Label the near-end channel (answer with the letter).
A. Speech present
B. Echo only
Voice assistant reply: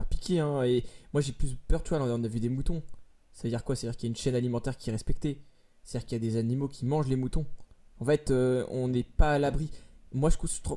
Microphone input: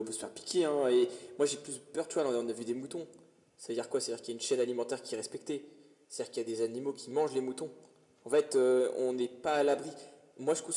B